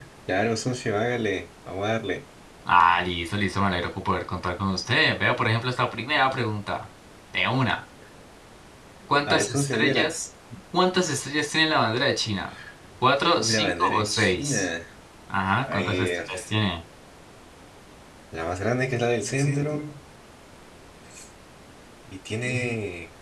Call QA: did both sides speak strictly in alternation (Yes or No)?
No